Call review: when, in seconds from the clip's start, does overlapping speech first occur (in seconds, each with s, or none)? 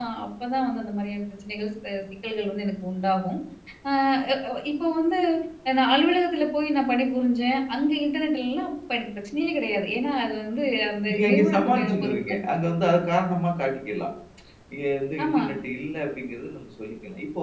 11.1 s